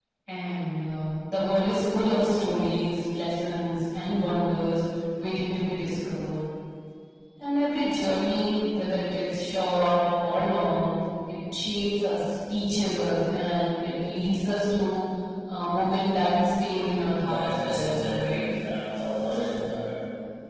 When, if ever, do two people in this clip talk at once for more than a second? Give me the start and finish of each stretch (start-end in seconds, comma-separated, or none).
17.2-18.4